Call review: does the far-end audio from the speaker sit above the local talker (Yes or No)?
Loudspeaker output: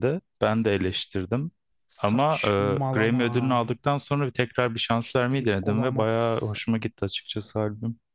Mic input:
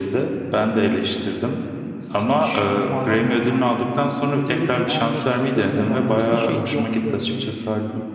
Yes